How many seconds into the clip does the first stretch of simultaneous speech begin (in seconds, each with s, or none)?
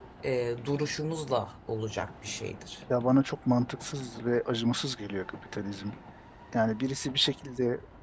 none